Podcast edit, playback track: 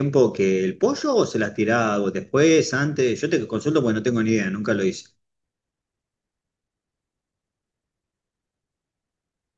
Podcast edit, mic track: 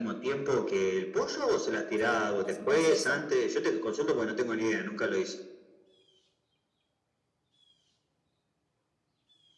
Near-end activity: present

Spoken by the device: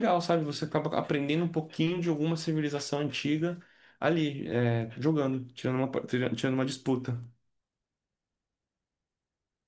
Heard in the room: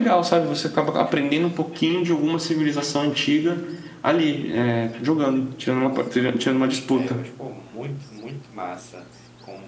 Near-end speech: present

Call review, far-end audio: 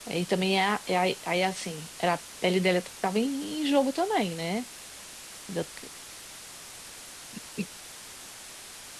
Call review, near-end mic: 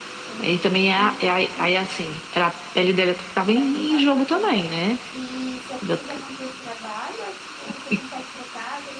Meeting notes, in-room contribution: present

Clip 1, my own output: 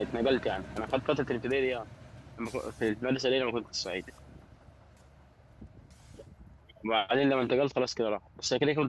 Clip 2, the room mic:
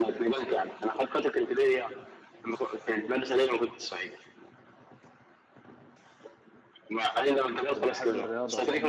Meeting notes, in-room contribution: present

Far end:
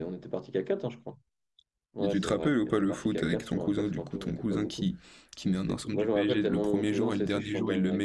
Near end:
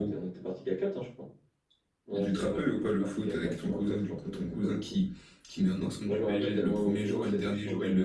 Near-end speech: none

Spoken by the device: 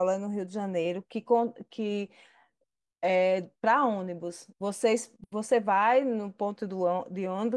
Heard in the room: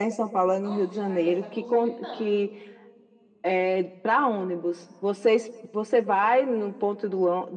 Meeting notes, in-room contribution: present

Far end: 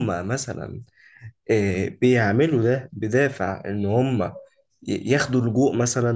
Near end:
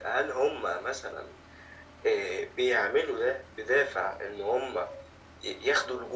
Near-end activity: none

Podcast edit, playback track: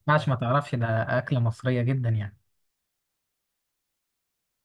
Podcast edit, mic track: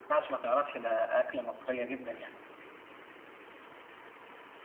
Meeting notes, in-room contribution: none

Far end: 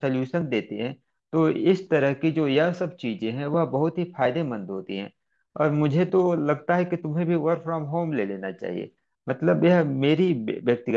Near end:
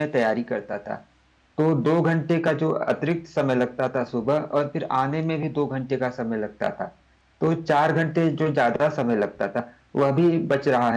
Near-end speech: present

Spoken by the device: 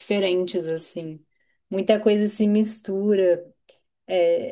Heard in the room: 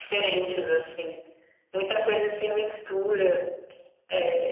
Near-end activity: none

